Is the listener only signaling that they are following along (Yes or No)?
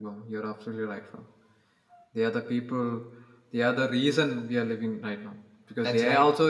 Yes